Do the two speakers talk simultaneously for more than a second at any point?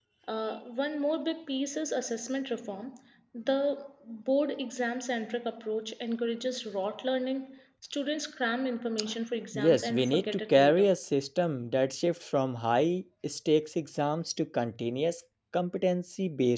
Yes, from 9.5 s

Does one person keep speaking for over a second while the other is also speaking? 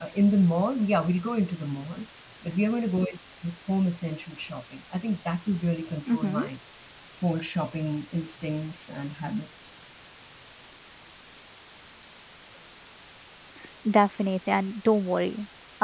No

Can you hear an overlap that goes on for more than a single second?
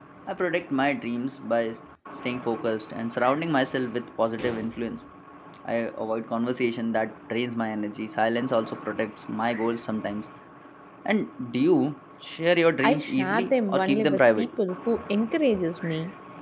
Yes, from 12.8 s

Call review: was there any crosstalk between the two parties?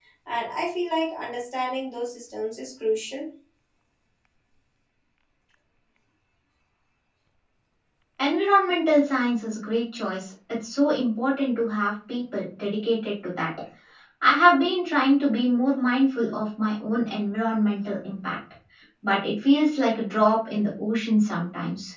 No

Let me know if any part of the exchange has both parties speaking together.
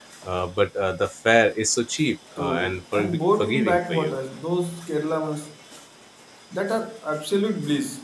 Yes, from 2.4 s

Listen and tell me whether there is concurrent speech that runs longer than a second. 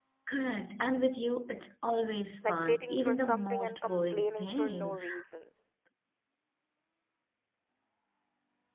Yes, from 2.4 s

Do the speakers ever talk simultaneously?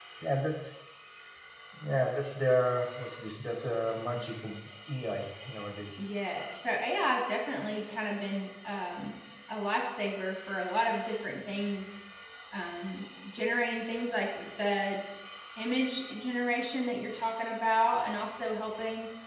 No

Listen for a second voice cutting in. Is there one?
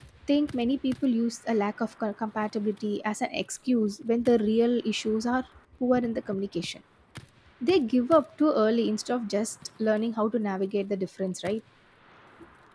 No

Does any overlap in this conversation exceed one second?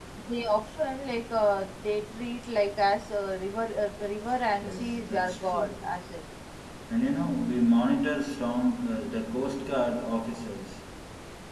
Yes, from 4.5 s

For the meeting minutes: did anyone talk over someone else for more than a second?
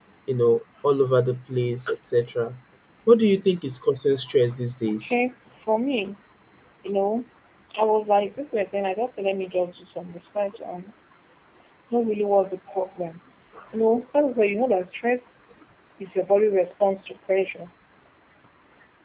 No

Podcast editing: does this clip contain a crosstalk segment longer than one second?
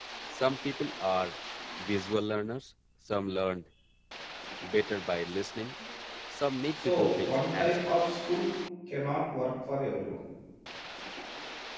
Yes, from 6.8 s

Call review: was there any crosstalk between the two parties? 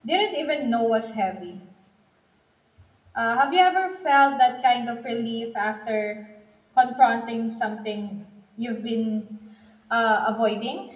No

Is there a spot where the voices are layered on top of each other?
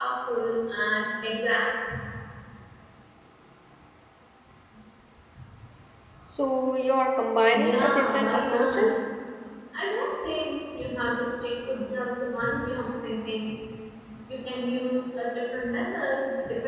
Yes, from 7.5 s

